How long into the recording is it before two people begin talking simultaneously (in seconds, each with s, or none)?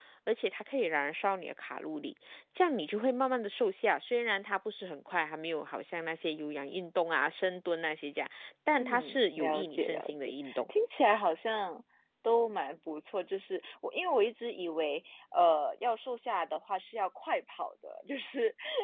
8.8 s